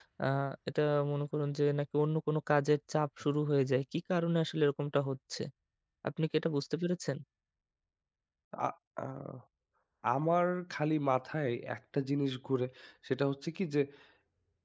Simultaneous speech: No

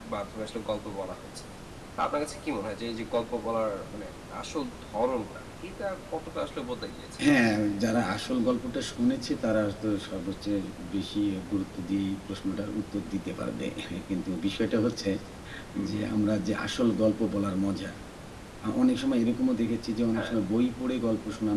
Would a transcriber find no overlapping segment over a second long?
Yes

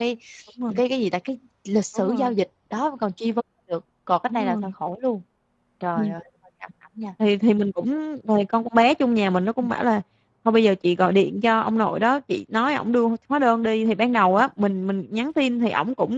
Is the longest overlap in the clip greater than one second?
No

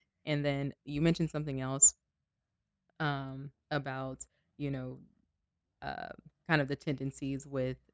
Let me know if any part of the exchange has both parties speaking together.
No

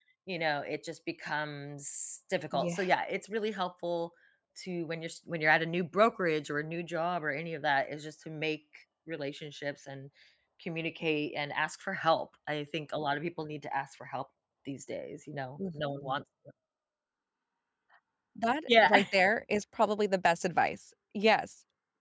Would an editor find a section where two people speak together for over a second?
No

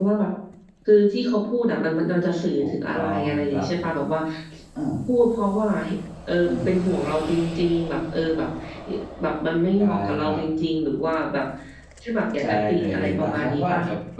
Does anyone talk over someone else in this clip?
Yes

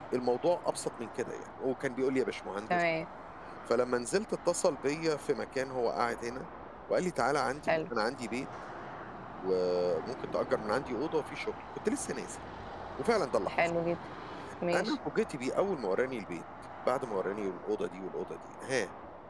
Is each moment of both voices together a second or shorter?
Yes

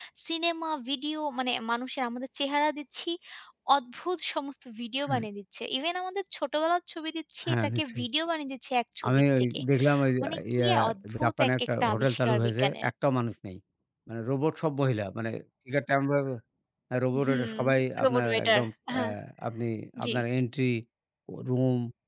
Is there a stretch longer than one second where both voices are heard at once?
Yes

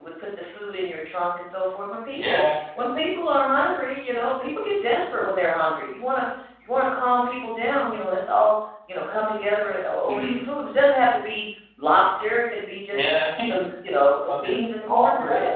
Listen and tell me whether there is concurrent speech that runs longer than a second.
Yes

